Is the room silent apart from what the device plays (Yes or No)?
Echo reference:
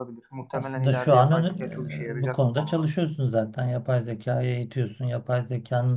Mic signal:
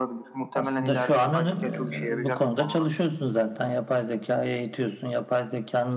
Yes